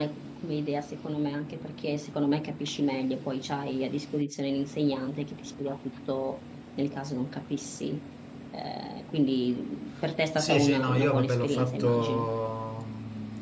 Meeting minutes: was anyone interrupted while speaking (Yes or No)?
Yes